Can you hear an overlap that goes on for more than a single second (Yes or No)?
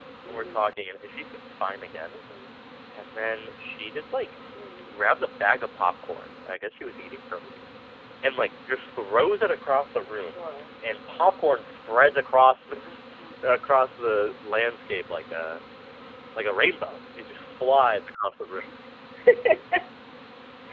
No